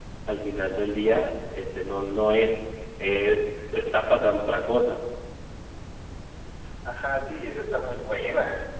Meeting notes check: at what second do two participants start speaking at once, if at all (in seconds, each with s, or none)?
none